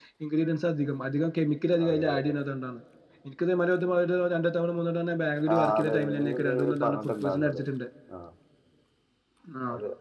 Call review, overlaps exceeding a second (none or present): present